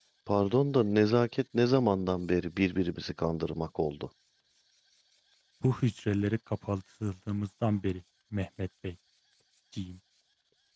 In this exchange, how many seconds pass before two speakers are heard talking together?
none

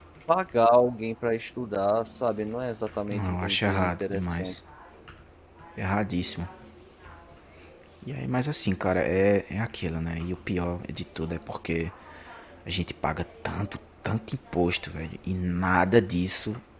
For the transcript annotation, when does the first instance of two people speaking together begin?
3.1 s

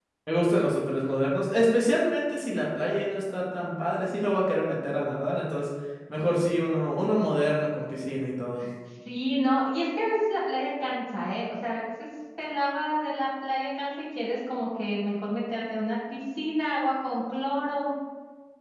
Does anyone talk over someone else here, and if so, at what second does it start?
none

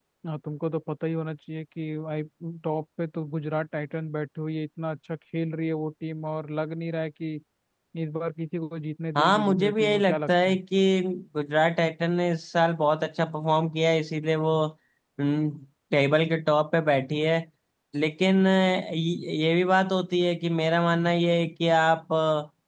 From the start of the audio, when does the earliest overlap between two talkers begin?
9.2 s

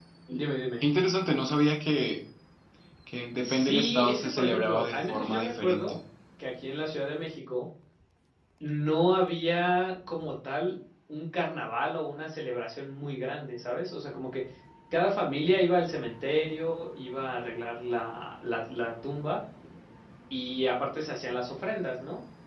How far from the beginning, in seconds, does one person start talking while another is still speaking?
3.4 s

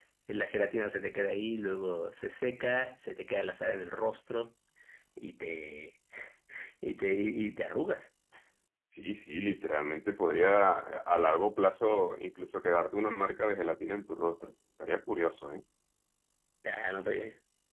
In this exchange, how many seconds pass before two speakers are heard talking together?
none

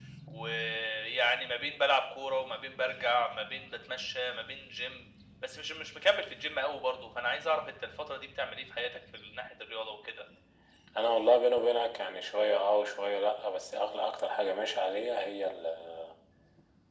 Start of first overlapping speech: none

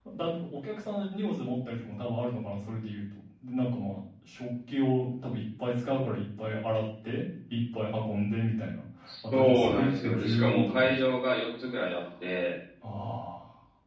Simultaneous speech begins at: 9.3 s

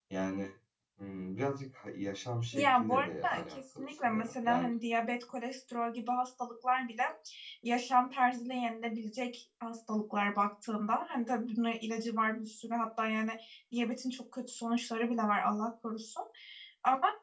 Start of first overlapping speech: 2.5 s

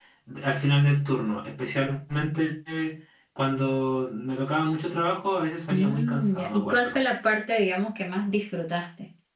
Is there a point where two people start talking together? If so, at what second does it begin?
5.7 s

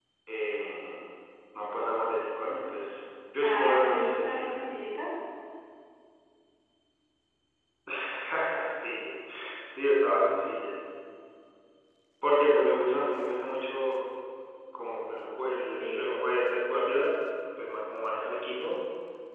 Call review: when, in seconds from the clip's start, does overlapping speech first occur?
3.4 s

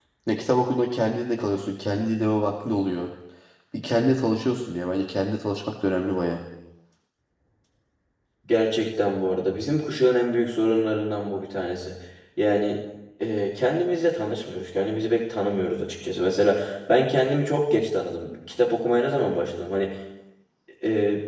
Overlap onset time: none

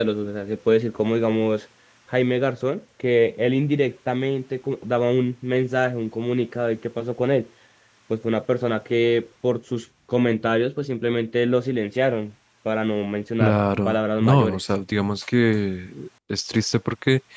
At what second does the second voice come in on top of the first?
13.4 s

